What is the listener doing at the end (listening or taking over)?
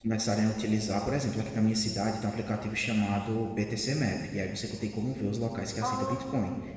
listening